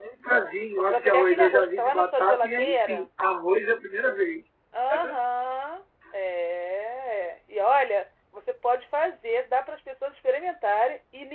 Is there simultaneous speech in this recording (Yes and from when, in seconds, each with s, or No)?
Yes, from 0.8 s